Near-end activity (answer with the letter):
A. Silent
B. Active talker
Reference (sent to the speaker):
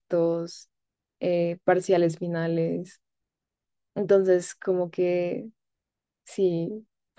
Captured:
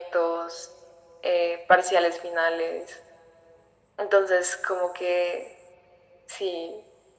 A